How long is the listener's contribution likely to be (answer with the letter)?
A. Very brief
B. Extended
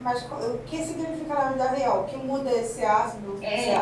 B